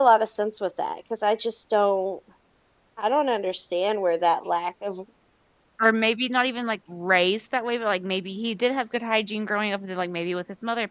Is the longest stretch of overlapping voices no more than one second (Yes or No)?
Yes